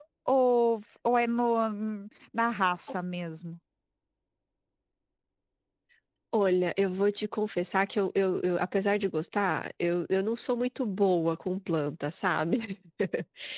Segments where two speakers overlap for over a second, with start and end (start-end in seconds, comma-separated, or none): none